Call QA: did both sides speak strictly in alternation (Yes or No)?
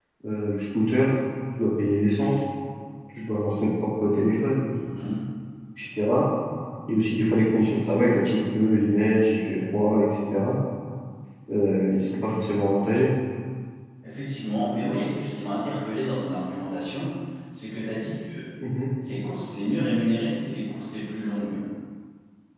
Yes